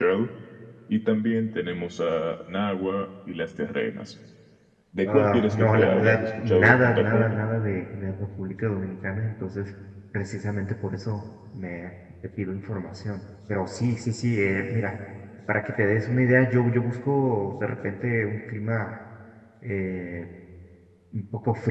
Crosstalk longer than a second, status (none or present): present